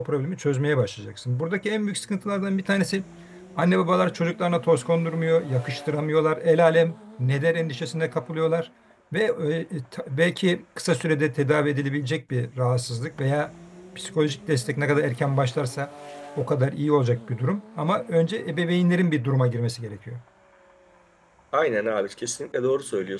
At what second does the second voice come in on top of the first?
none

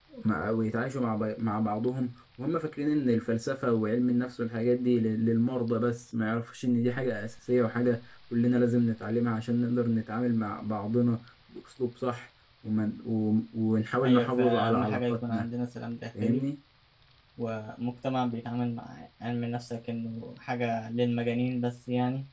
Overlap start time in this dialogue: 14.0 s

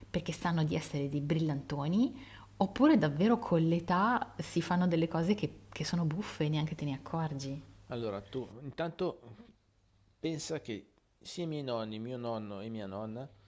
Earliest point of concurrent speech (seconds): none

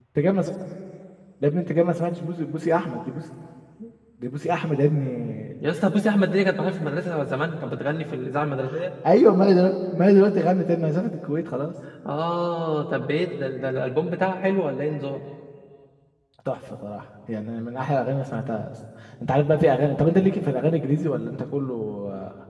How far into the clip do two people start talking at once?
none

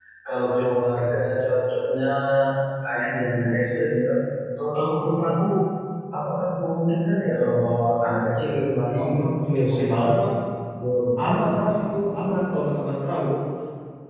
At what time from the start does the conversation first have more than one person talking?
9.0 s

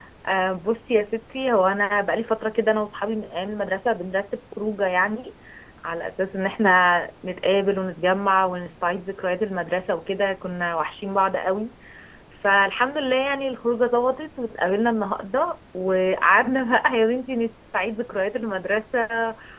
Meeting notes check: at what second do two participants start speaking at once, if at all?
none

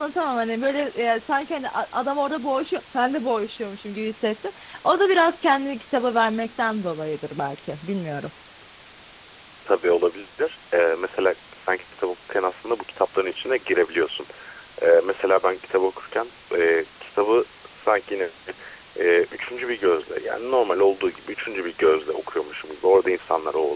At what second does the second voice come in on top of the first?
none

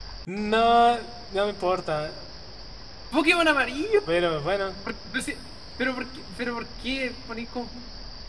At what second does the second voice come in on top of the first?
none

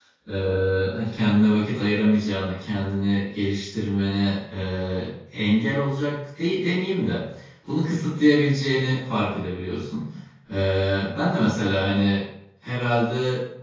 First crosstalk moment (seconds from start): none

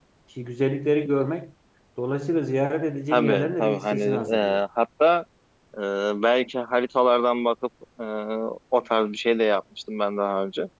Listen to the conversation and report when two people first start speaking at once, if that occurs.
3.1 s

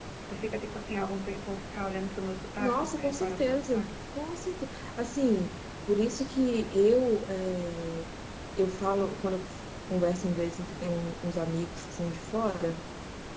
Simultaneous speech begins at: 2.5 s

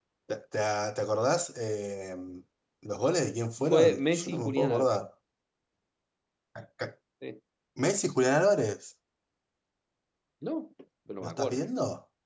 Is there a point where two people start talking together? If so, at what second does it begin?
3.6 s

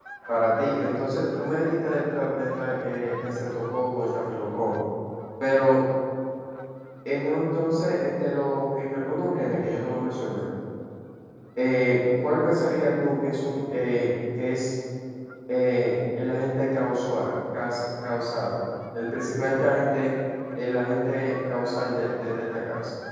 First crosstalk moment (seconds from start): none

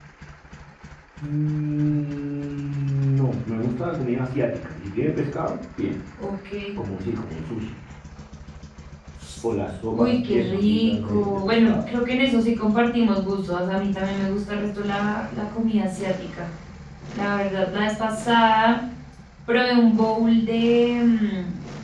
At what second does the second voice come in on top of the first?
9.9 s

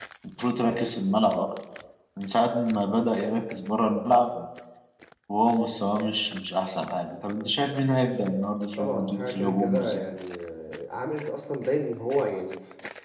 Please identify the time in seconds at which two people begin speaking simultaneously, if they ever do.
8.8 s

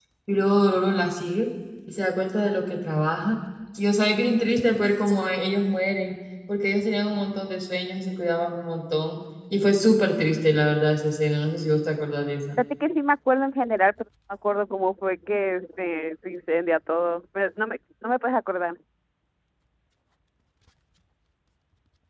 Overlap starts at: none

